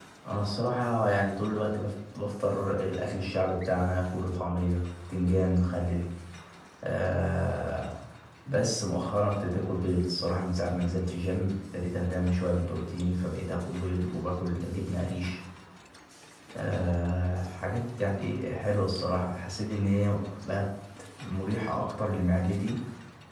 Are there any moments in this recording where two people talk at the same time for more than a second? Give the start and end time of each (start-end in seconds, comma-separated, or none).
none